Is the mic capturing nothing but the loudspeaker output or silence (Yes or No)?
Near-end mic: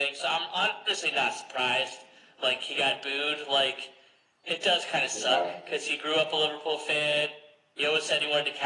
No